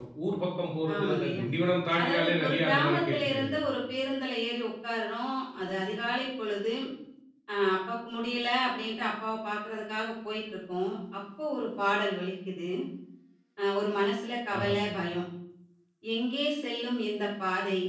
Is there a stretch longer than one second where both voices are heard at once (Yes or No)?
Yes